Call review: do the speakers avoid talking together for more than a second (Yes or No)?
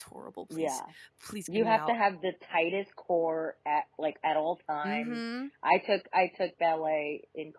Yes